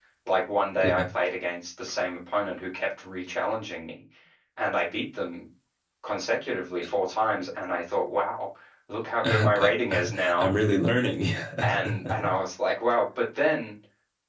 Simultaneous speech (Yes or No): Yes